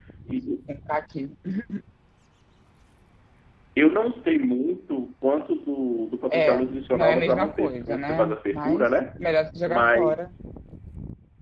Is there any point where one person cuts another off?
Yes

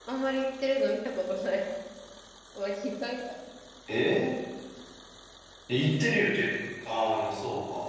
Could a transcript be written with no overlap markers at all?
Yes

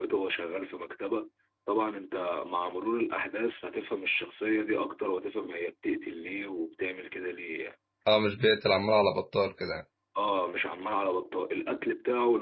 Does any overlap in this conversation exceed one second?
No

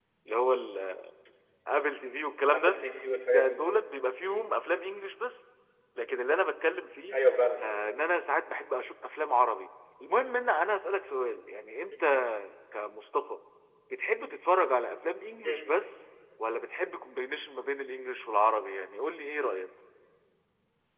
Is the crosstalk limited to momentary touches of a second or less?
Yes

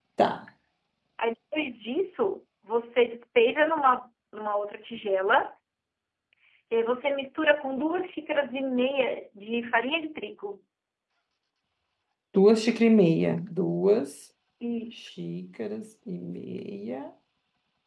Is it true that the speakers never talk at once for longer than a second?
Yes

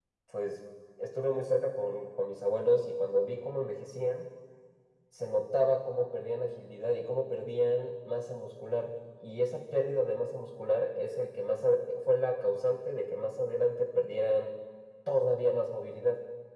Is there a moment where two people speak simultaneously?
No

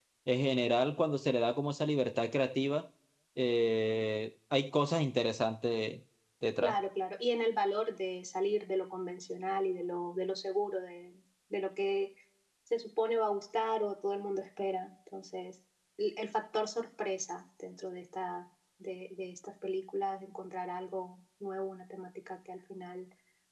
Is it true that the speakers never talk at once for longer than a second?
Yes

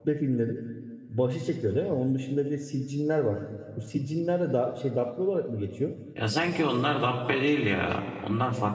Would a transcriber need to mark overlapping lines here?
No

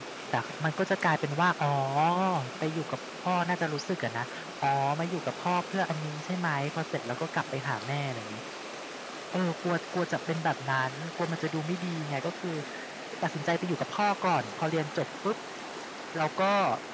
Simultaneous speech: No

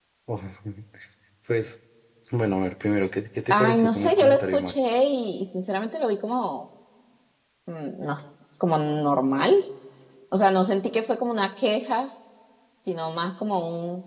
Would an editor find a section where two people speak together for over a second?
Yes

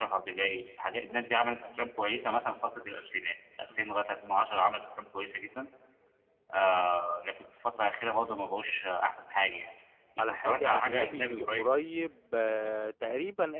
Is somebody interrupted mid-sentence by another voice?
Yes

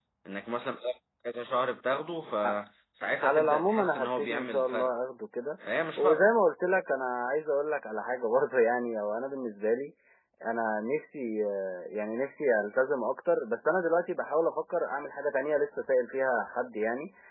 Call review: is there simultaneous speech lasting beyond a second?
Yes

